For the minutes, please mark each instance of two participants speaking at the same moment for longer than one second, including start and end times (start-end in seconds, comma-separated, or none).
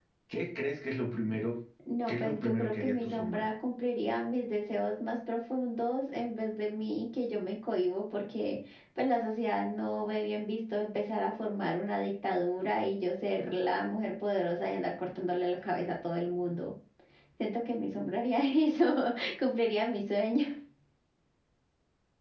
2.1-3.5